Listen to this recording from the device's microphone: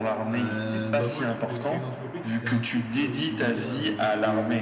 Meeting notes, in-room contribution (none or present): present